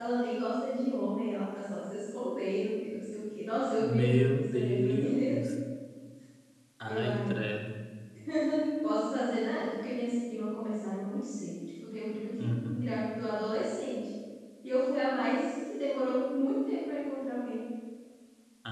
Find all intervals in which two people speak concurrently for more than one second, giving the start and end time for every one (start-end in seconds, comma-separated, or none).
3.8-5.4